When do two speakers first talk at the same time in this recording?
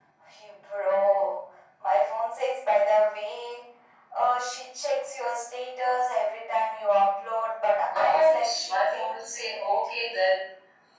7.7 s

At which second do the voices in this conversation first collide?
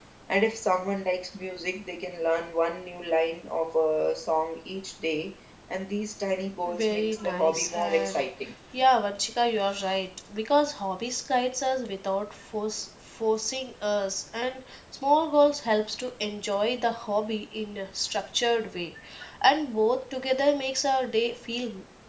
6.6 s

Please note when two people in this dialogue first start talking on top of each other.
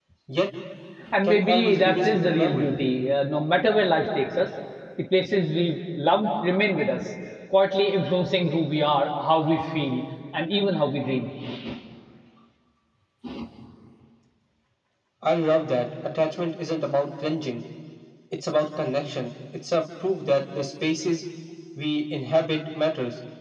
1.2 s

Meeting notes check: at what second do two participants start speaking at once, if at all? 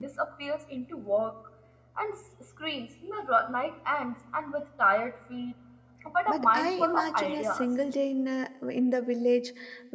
6.3 s

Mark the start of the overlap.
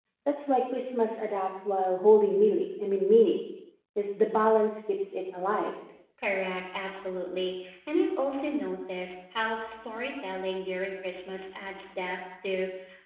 none

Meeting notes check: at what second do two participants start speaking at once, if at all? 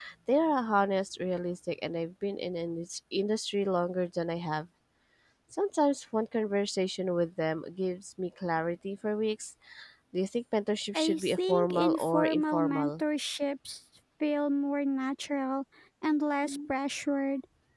11.0 s

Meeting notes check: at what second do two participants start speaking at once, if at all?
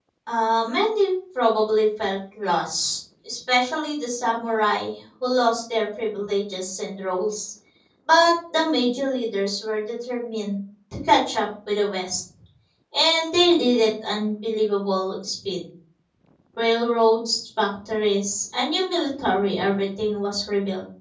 none

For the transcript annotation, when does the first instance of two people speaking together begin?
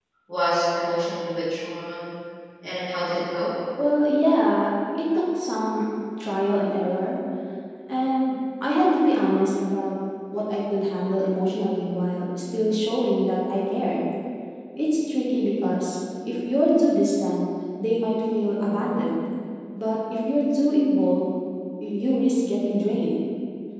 none

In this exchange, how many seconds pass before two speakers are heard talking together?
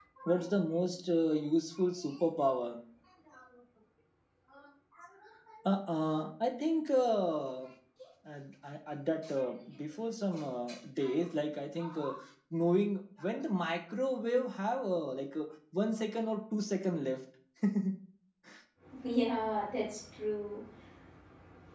none

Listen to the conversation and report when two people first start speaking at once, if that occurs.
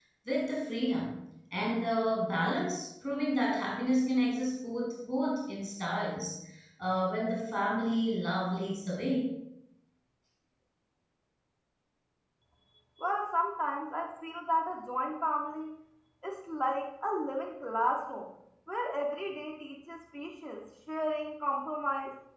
none

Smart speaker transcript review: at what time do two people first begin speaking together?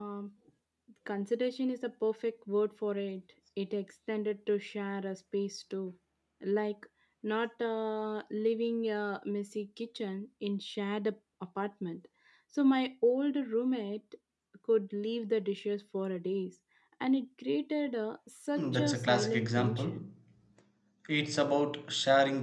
18.6 s

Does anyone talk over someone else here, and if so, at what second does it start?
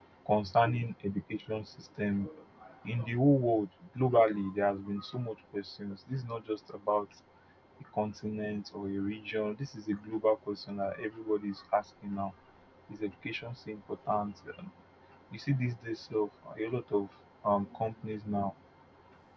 none

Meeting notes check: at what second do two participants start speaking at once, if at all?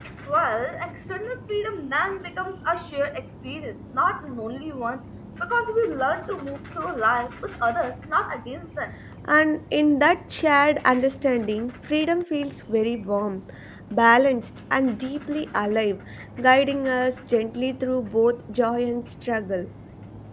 none

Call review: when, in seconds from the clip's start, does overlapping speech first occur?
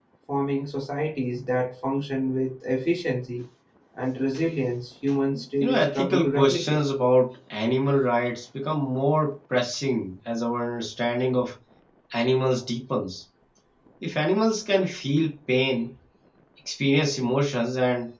5.6 s

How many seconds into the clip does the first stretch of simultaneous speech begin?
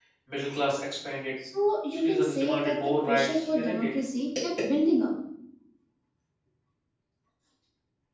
1.9 s

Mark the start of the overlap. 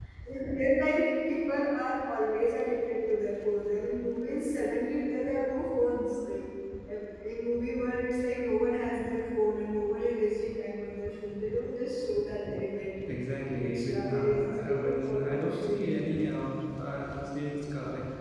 13.6 s

